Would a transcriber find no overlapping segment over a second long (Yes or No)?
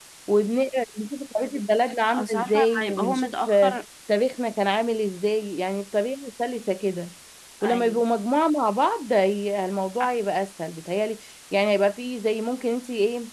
No